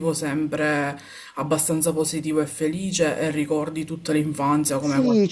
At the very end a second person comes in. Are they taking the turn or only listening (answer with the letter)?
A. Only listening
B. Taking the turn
B